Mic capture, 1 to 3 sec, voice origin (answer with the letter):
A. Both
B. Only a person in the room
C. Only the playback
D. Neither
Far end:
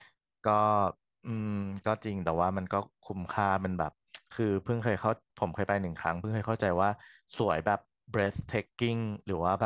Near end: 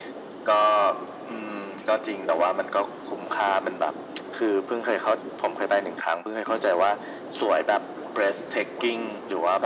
C